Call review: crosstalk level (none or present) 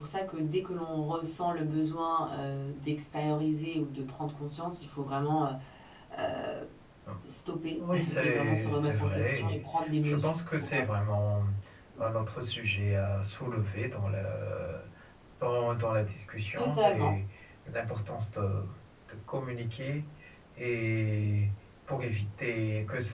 present